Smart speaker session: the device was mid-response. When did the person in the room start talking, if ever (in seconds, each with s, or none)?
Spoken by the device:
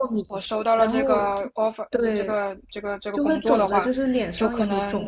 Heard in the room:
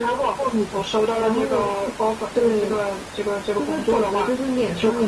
none